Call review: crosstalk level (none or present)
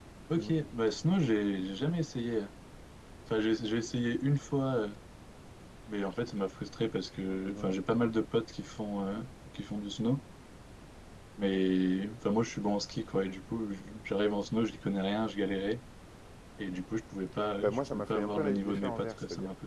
present